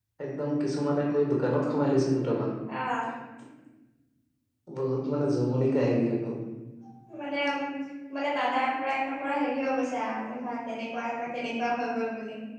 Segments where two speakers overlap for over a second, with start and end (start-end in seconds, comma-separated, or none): none